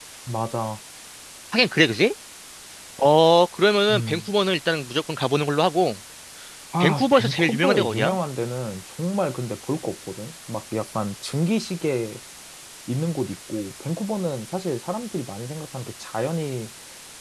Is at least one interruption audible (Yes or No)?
Yes